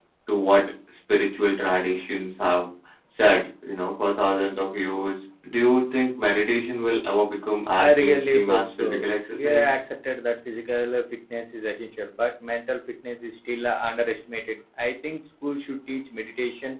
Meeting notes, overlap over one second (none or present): present